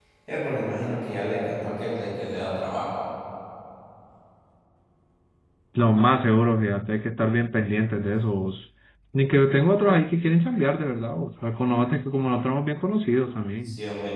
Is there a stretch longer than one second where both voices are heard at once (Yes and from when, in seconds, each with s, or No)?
No